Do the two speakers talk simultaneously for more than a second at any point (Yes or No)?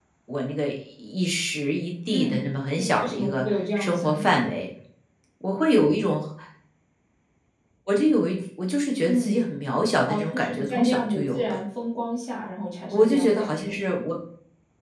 Yes